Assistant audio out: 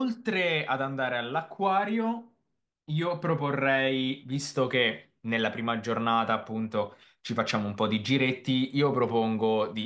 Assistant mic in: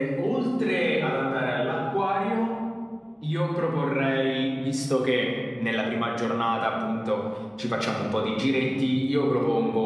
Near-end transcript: none

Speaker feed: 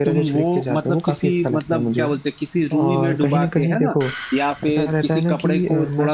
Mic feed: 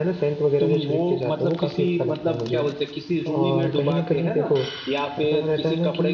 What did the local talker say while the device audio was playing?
none

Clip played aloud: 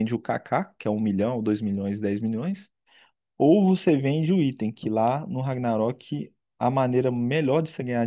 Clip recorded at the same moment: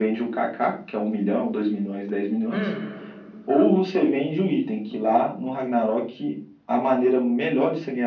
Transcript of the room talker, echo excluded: Hum.

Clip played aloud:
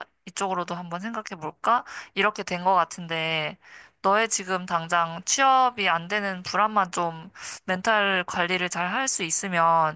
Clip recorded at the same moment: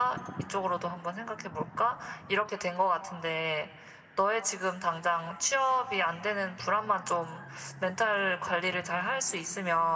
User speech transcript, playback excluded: none

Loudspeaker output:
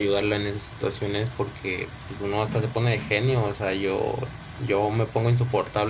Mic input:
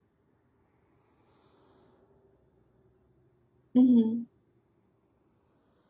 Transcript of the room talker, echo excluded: ujú,

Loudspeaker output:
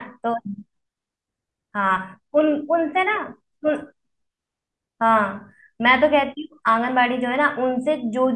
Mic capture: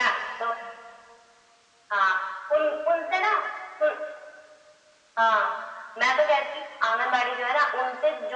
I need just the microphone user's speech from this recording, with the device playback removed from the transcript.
none

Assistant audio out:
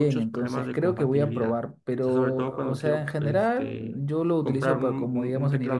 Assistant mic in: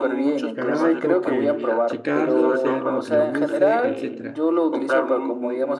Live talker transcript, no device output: caray, tengo que checarlo, si hay alguno que me guste, etcétera.

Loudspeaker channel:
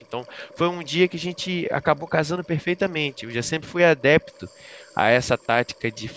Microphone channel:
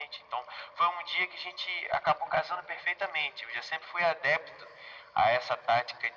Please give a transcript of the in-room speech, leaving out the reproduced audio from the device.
none

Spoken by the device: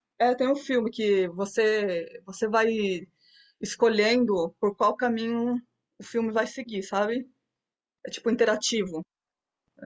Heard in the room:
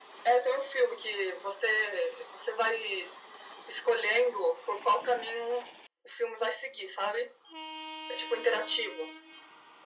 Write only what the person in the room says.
none

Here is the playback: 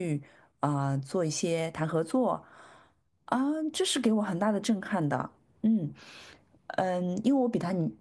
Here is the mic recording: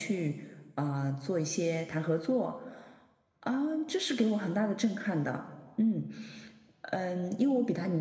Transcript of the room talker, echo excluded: none

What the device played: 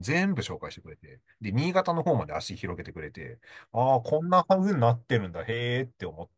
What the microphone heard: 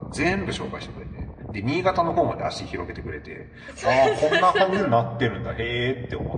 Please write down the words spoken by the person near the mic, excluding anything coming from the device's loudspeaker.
そうそうそうそう。

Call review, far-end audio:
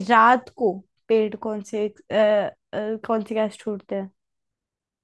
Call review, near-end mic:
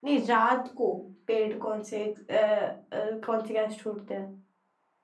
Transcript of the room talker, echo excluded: none

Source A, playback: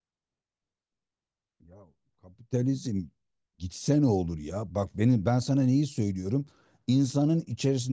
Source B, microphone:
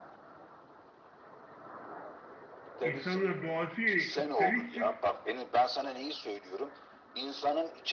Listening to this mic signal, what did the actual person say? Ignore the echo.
İnsanlar doğası gereği kapitalisttir

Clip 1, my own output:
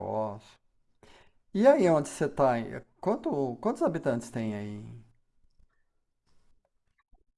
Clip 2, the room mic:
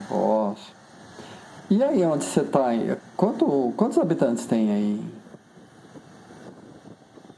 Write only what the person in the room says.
none

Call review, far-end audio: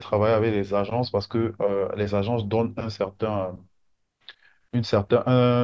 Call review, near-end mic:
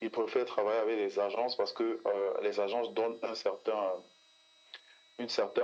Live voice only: none

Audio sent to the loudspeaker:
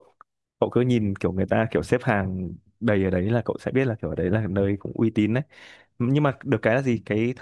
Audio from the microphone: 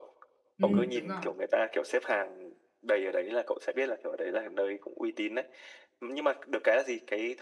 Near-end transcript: ừ Ừ. đúng rồi

